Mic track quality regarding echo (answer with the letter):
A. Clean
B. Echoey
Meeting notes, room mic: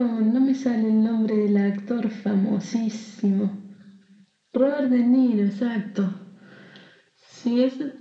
B